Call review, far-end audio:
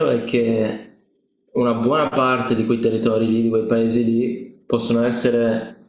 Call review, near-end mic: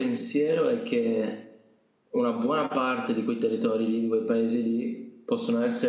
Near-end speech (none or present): none